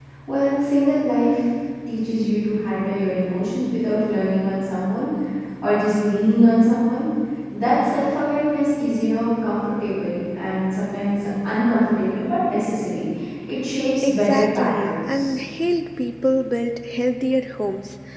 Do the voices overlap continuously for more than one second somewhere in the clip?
Yes, from 14.0 s

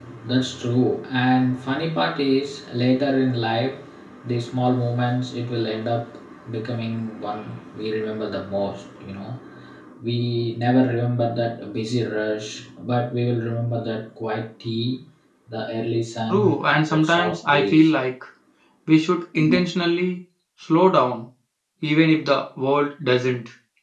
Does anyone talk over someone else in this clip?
Yes, from 16.3 s

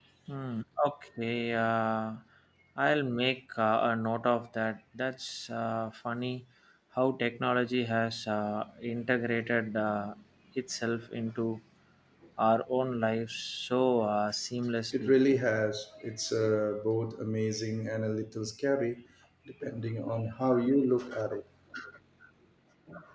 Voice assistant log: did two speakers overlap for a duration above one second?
No

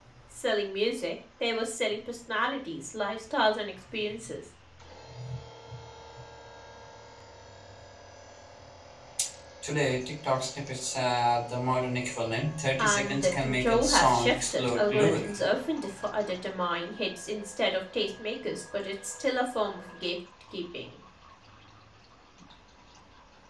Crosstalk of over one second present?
Yes, from 12.8 s

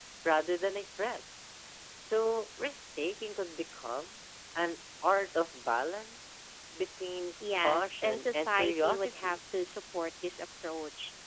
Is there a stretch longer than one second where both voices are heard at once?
Yes, from 7.6 s

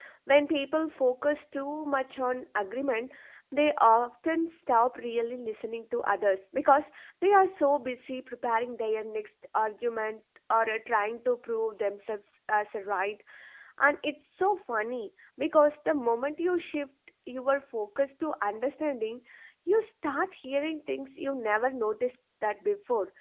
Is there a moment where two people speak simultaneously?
No

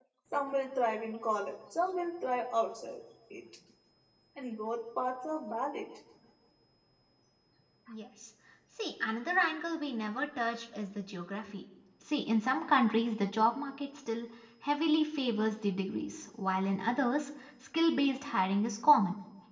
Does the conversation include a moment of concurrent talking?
No

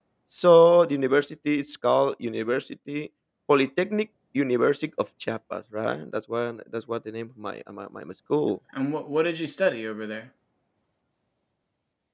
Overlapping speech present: No

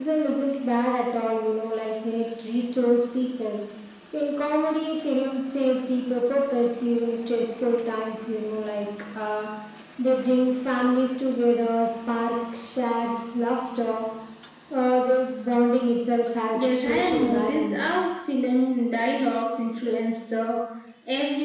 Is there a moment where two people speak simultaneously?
Yes, from 16.5 s

